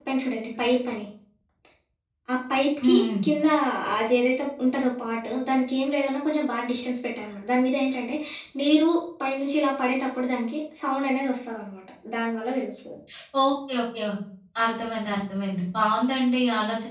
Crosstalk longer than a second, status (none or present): none